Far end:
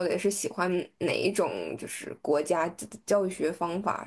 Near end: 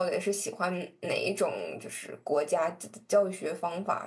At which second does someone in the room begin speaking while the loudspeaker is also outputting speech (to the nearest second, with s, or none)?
none